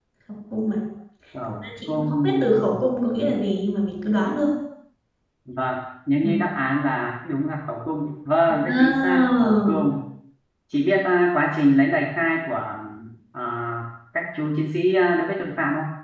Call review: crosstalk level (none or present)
present